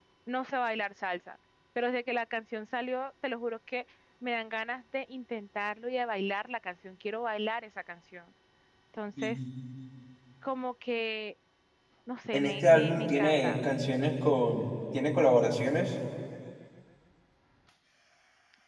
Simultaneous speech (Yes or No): Yes